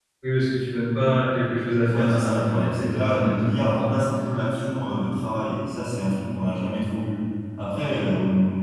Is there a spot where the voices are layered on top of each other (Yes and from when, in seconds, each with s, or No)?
Yes, from 1.9 s